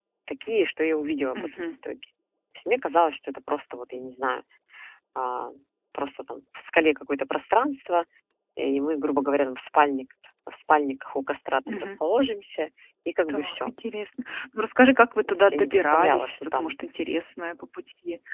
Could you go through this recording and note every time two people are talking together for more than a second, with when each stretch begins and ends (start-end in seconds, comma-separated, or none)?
15.1-16.8